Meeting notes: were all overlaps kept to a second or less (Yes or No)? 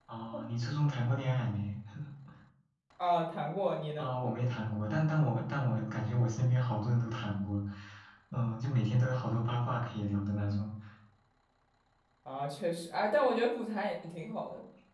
Yes